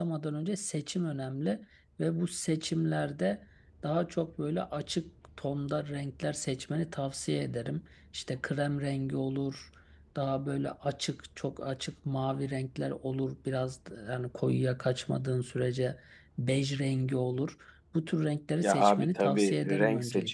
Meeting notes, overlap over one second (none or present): present